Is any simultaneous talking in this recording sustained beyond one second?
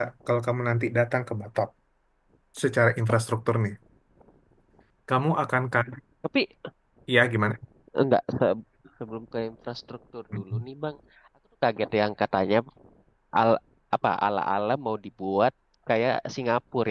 No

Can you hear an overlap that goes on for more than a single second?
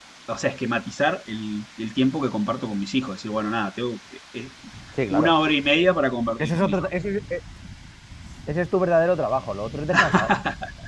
No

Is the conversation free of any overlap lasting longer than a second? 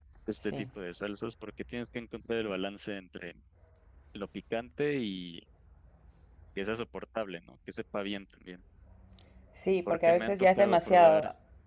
No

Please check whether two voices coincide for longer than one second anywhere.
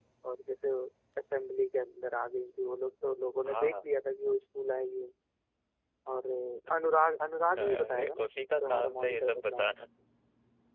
Yes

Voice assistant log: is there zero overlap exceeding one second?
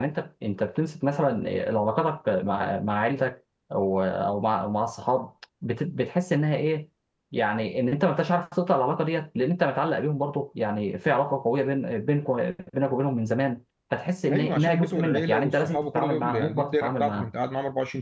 No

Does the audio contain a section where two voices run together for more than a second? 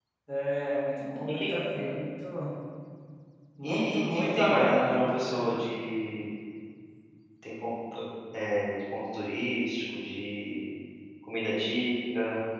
Yes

